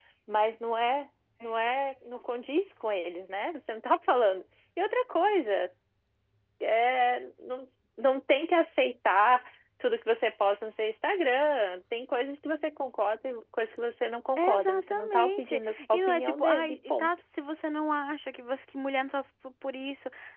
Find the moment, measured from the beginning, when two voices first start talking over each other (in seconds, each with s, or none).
14.4 s